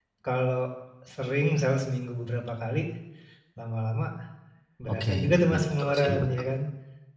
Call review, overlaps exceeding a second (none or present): present